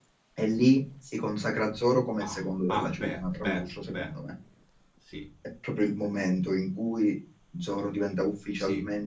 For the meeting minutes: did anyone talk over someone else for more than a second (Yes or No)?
Yes